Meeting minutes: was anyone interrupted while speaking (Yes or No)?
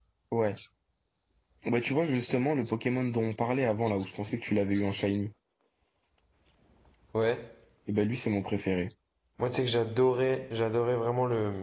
No